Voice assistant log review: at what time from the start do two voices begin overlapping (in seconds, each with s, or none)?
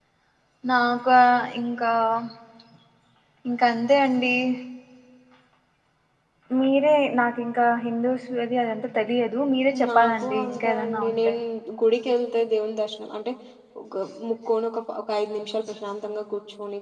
9.7 s